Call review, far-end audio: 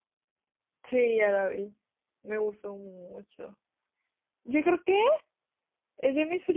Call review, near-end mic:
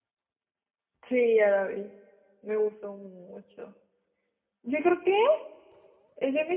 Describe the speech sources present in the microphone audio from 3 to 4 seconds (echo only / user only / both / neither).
echo only